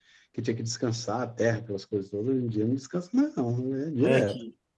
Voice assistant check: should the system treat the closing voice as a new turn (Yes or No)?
Yes